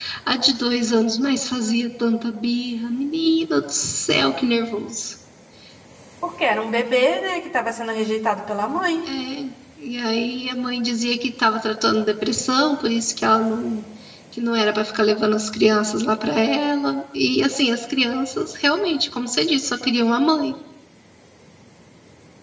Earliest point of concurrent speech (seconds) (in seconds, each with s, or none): none